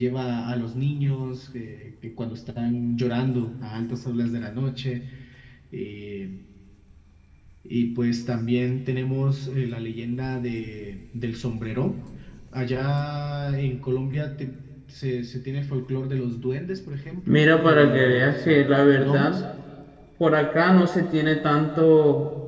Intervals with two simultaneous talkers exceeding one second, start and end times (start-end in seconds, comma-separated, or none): 17.3-19.4